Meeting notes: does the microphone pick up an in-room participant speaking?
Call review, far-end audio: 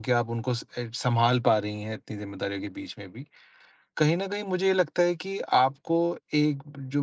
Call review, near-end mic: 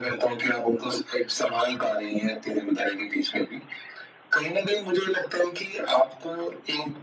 No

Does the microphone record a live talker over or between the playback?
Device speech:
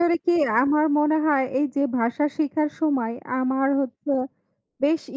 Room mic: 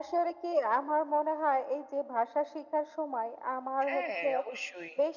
Yes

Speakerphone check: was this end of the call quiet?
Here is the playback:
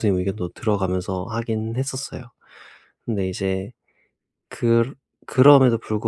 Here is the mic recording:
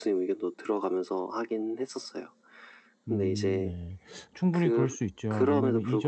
No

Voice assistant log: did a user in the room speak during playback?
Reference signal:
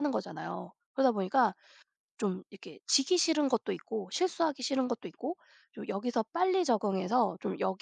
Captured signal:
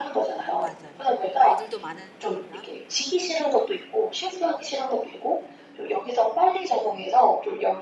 Yes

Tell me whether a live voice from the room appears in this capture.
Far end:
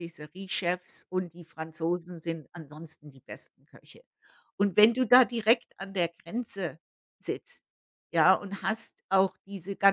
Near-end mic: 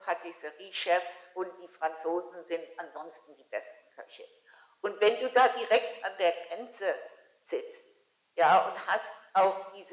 No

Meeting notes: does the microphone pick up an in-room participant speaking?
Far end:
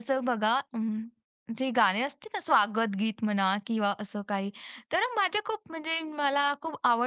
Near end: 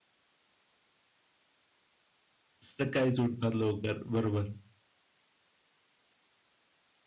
Yes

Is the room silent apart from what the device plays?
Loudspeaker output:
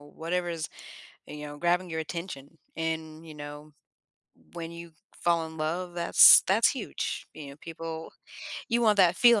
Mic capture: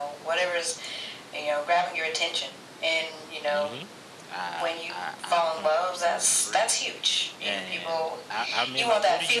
No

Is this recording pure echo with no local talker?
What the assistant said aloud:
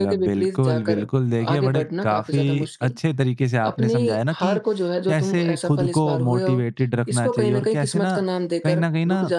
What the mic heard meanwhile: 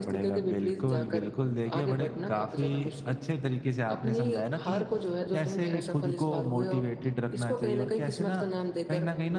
Yes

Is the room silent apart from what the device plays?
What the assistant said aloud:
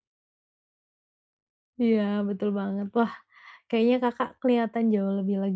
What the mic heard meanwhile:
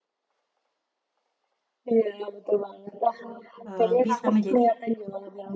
No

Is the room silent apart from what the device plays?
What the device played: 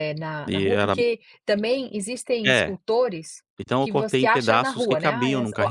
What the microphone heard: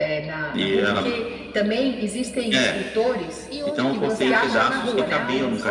No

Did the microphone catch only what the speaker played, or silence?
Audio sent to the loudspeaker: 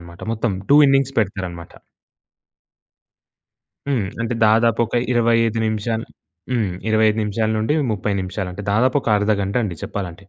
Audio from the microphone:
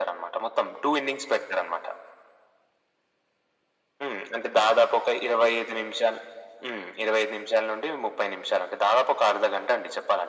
Yes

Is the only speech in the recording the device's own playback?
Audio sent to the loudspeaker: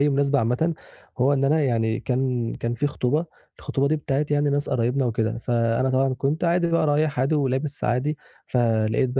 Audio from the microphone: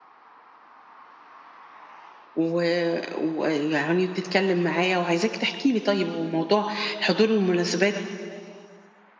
No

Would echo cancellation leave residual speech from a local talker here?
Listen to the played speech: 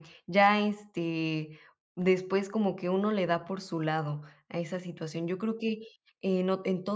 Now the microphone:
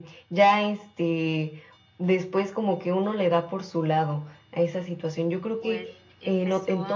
Yes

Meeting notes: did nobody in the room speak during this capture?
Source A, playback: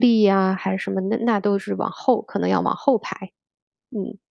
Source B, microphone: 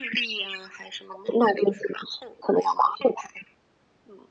Yes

